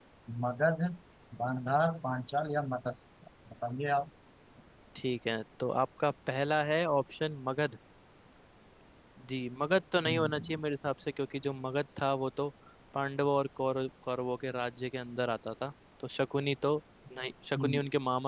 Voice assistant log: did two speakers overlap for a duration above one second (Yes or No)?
No